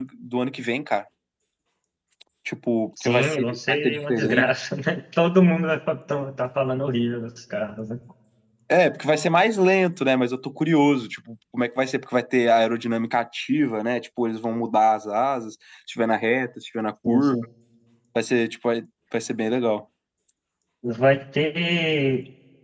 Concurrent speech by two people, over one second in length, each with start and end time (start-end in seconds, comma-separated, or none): 3.0-4.5